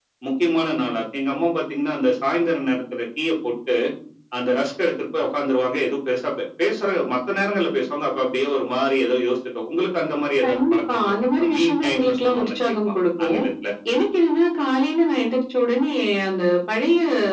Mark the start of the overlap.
10.4 s

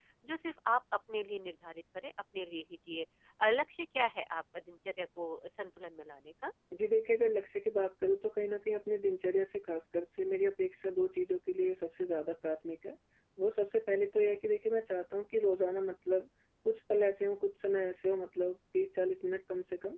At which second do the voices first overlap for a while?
none

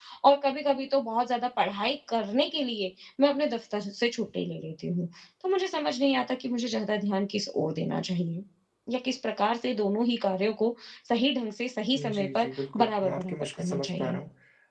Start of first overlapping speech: 12.0 s

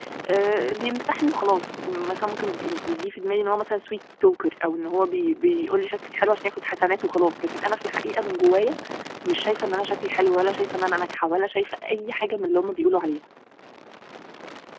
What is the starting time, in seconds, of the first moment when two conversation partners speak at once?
none

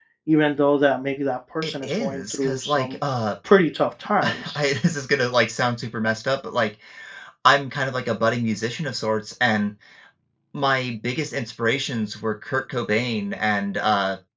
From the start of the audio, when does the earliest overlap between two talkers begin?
1.6 s

